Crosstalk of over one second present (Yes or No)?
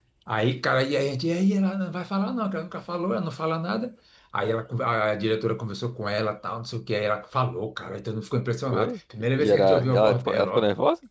Yes